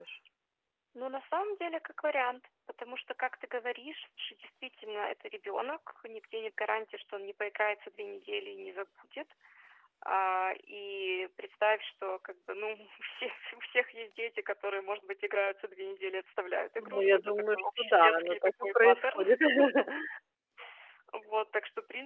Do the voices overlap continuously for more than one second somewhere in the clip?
Yes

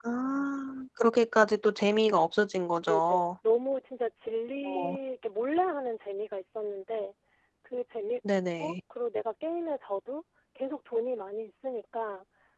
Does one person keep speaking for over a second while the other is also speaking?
No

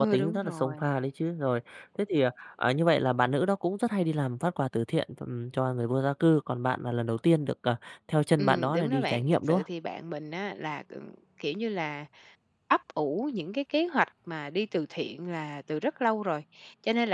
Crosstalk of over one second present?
Yes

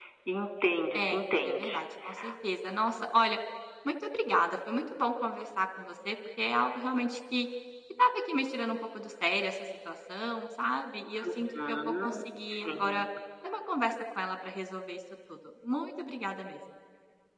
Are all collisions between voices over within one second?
No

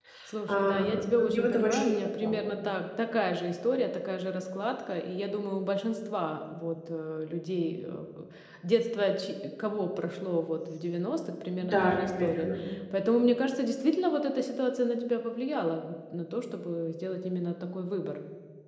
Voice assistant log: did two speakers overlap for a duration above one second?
Yes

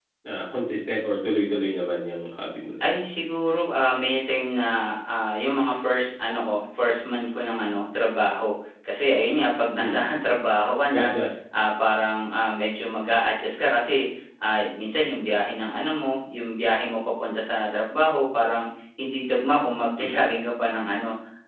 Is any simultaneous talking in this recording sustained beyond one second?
No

